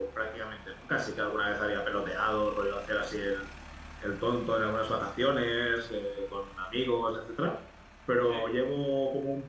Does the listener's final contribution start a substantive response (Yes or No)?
No